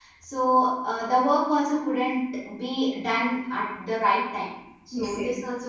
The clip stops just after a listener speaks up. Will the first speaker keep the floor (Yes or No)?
Yes